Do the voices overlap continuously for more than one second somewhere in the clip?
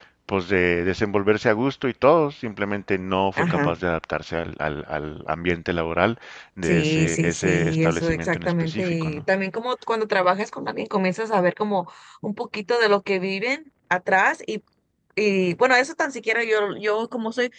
Yes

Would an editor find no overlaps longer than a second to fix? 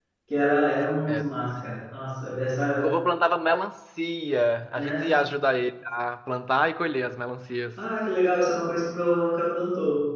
Yes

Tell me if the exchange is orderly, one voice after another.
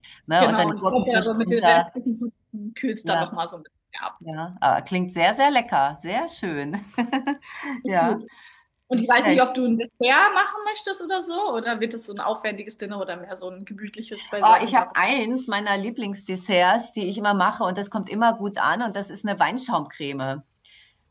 No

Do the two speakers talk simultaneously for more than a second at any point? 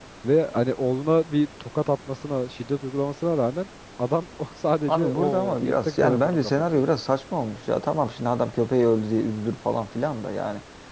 Yes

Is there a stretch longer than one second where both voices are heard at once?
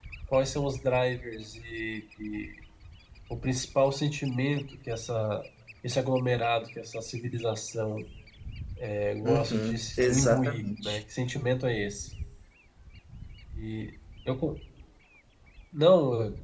Yes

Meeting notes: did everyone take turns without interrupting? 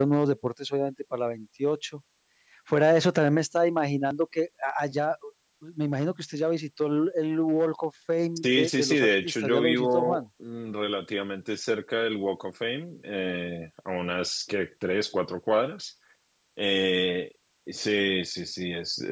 No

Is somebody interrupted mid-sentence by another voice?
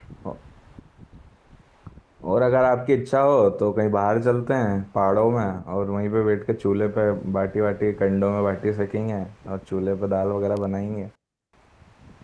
No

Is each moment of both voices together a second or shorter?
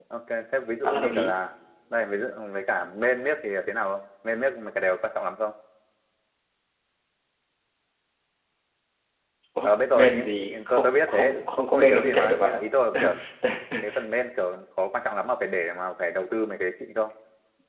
No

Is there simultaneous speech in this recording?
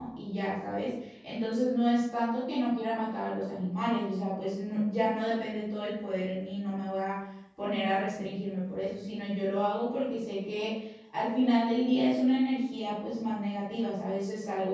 No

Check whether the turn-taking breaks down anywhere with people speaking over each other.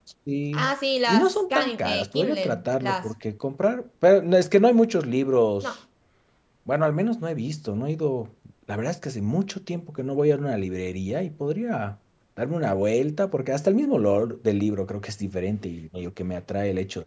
Yes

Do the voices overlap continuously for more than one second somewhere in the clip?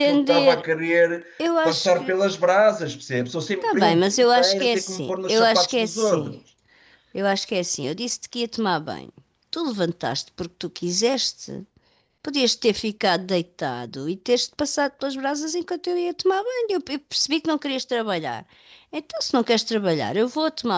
Yes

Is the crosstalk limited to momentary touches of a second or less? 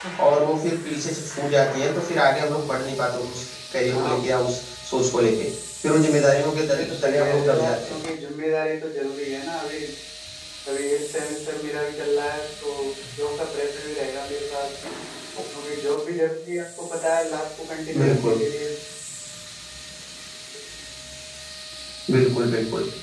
No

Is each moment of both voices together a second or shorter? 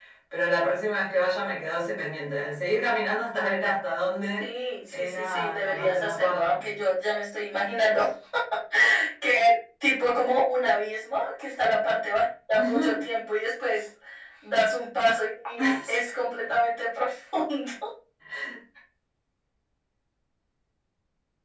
No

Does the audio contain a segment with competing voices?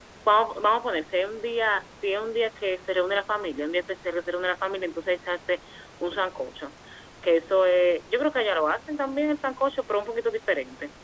No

